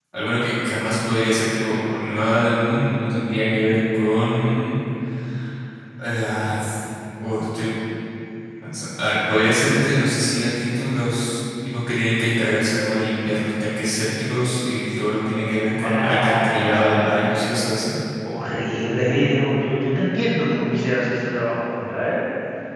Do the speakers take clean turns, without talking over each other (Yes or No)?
No